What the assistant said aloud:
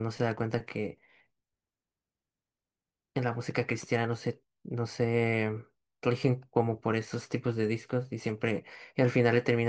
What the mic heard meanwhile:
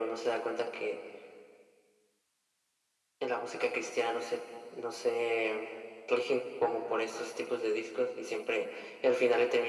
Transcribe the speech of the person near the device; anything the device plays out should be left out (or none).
none